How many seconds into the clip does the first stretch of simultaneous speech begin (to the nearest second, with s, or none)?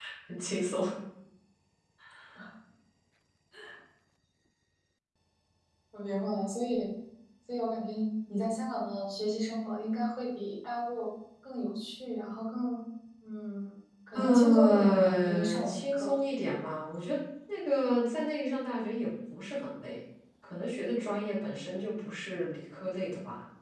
14 s